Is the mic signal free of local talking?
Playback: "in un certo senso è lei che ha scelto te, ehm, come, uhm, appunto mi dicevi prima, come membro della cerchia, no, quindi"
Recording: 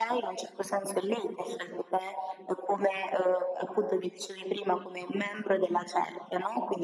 Yes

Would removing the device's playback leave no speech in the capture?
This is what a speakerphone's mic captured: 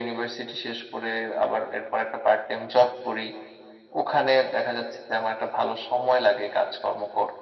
Yes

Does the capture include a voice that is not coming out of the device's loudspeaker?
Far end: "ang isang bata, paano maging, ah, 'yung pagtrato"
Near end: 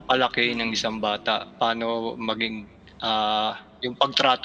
Yes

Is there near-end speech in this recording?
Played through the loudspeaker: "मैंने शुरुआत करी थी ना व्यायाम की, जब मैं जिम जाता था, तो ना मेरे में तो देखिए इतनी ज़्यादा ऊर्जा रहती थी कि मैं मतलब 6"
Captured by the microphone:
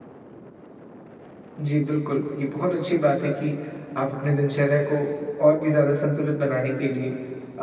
Yes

